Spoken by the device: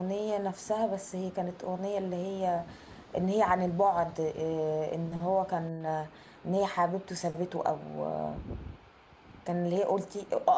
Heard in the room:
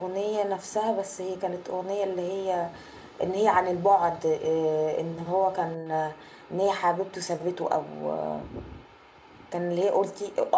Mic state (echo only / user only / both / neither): echo only